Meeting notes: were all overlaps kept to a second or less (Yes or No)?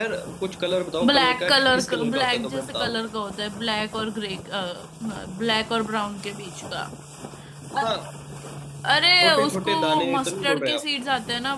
No